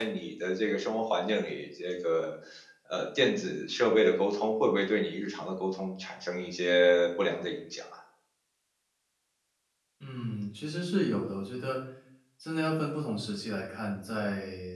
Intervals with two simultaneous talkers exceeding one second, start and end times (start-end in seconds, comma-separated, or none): none